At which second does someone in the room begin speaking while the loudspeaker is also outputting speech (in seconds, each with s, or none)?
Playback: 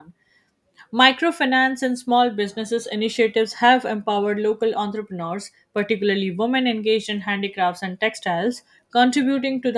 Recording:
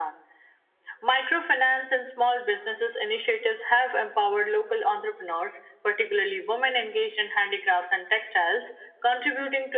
none